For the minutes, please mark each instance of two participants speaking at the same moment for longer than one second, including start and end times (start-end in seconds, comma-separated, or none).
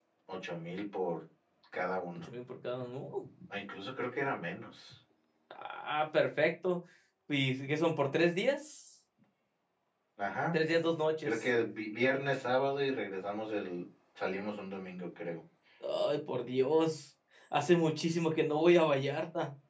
none